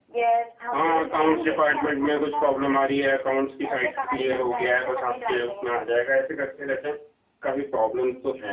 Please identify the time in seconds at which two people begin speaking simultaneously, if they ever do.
0.7 s

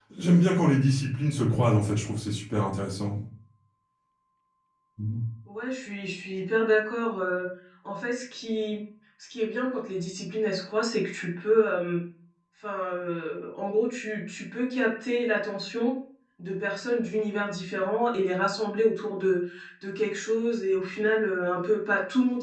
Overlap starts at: none

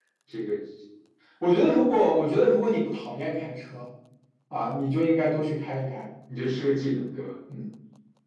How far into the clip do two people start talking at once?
none

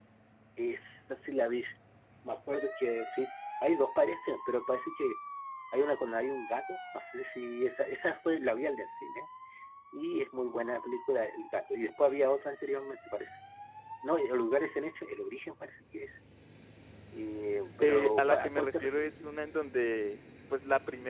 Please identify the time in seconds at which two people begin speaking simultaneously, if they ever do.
17.8 s

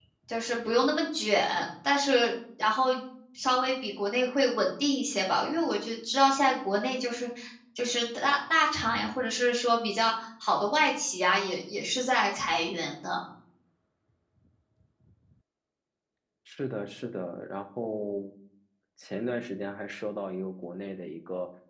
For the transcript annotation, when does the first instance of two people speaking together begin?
none

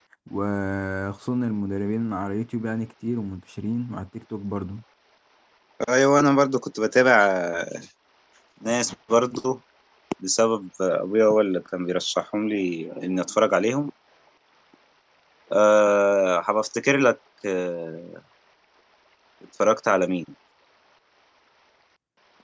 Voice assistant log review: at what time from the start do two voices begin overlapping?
none

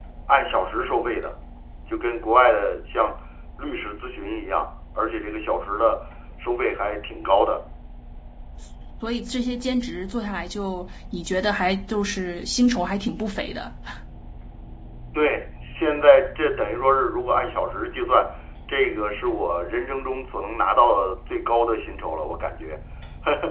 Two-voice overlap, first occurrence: none

